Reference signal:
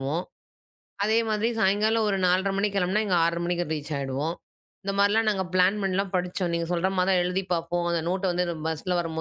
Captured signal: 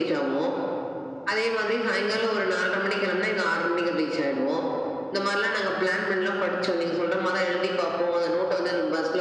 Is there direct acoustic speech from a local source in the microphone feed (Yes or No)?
No